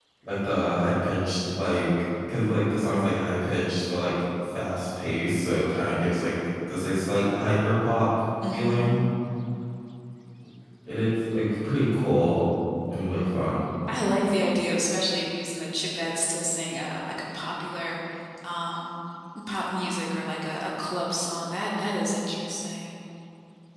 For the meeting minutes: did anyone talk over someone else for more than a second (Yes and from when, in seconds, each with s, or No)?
No